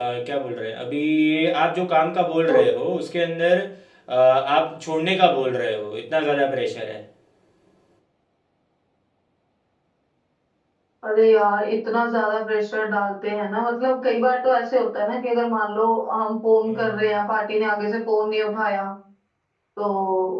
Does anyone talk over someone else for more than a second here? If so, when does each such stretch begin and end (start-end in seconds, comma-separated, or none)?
none